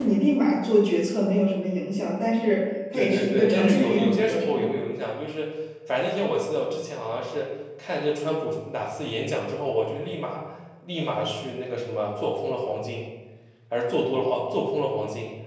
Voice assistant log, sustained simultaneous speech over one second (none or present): present